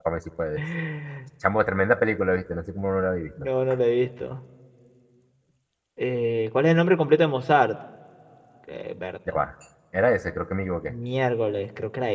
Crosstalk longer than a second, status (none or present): none